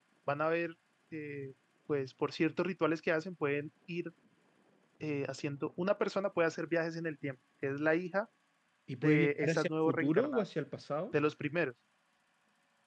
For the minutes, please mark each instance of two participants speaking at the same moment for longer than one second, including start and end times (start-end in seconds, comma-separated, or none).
9.0-10.4